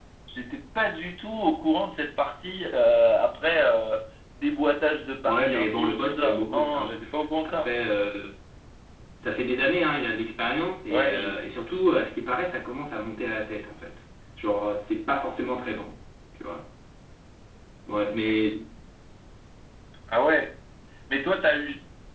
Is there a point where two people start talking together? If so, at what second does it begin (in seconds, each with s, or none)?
5.2 s